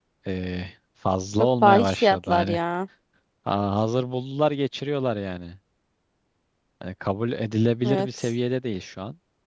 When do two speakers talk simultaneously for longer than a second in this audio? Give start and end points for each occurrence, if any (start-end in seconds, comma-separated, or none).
1.4-2.6